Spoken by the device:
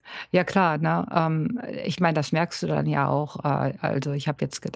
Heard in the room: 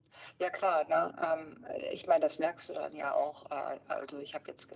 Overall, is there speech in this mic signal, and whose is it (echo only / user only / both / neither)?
echo only